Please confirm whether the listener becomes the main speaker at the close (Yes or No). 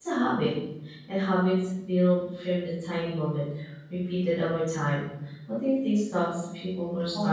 Yes